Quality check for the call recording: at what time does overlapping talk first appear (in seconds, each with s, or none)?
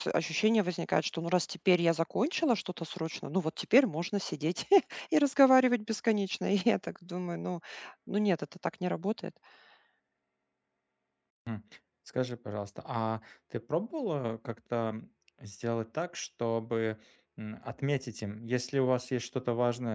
none